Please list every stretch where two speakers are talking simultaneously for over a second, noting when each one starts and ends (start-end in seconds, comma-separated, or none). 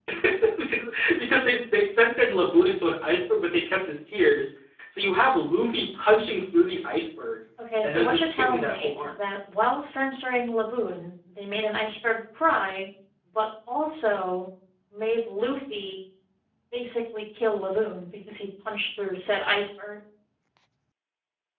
7.8-9.2